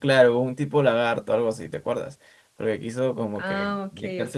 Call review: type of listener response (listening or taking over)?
taking over